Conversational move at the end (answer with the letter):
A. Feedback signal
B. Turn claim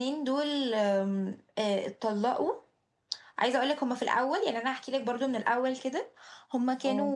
A